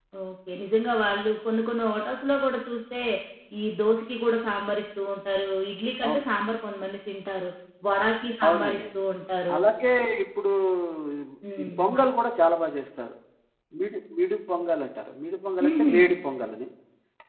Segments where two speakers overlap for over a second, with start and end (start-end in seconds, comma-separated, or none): none